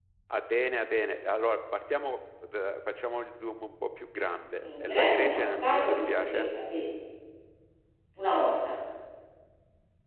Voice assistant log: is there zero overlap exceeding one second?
No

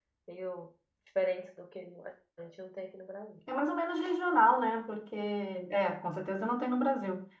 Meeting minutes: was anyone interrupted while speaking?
No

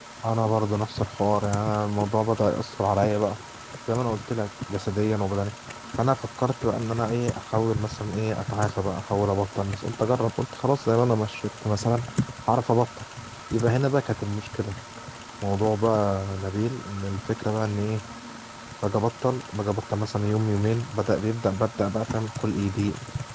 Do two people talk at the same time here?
No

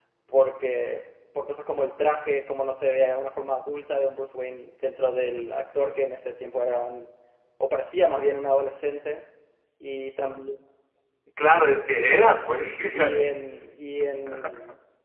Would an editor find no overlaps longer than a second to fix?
Yes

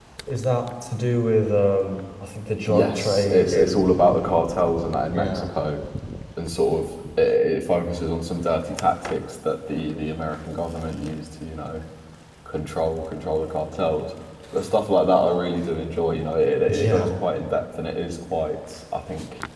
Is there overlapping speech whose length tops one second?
Yes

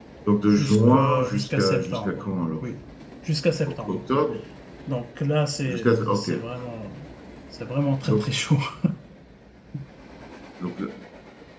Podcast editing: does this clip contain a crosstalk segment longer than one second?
Yes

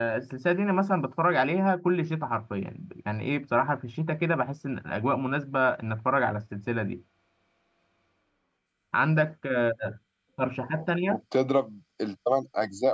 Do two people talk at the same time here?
No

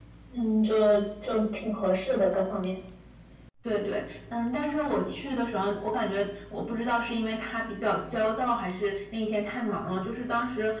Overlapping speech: No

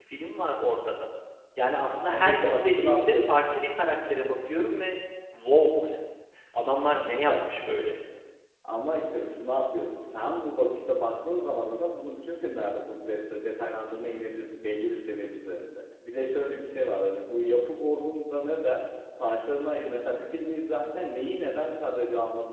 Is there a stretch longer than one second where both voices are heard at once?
Yes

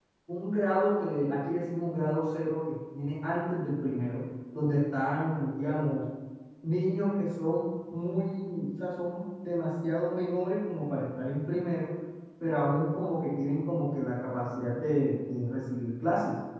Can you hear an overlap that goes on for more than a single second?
No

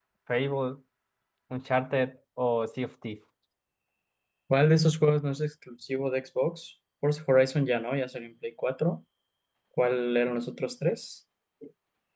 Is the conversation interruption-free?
Yes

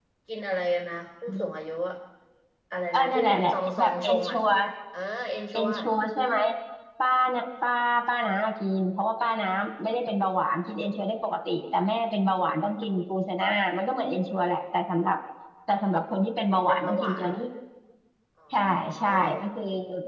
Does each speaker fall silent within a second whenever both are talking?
No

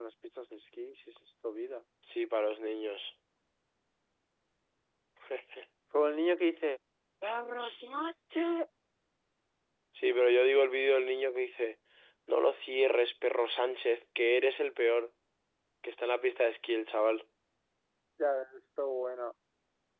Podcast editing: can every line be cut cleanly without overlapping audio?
Yes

